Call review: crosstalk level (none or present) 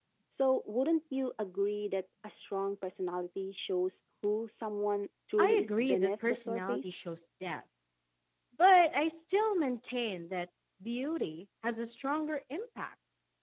present